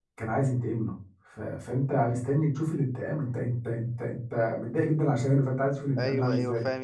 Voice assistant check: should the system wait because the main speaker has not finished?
No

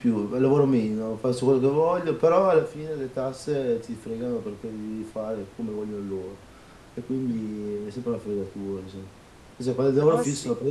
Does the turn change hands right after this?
No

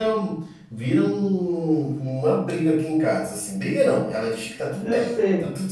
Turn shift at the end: No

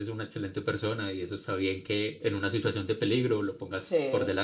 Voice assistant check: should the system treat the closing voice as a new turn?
Yes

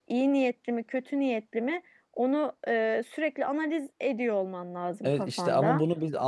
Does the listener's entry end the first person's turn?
Yes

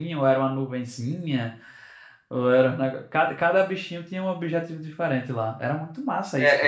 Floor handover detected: Yes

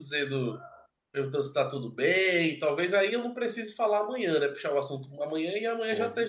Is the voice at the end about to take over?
Yes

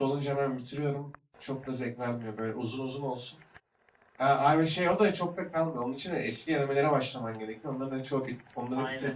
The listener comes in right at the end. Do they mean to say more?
No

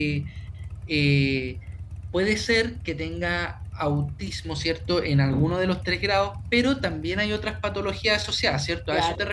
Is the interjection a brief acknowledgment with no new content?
No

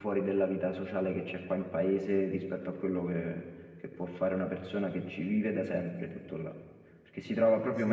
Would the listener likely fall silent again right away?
No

